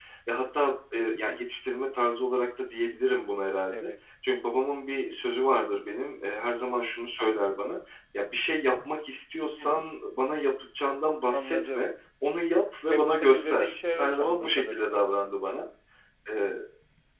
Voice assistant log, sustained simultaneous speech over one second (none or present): present